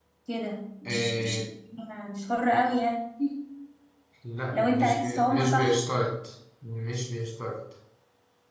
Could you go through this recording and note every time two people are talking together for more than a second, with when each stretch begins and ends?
4.5-5.8

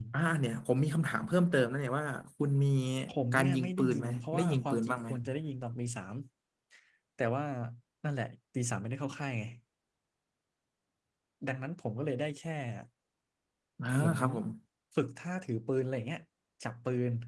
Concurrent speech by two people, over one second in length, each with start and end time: 3.3-5.1

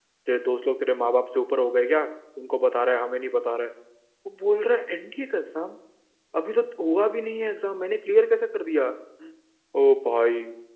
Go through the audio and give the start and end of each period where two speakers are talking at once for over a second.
none

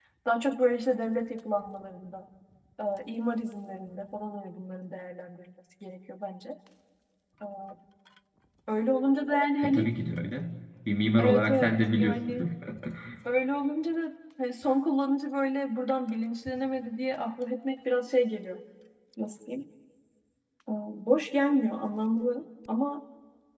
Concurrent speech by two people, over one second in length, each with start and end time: 11.2-12.5

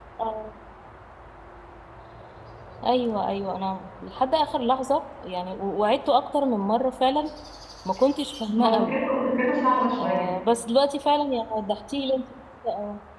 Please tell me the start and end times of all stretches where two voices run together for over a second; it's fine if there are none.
none

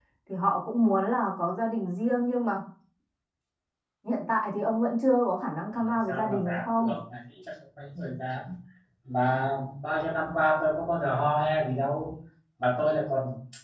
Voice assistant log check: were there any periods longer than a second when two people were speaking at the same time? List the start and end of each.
5.7-7.0

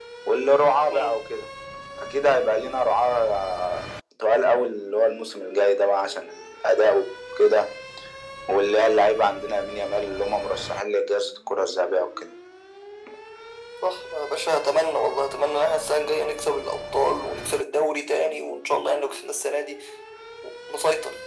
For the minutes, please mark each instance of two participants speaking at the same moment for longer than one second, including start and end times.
none

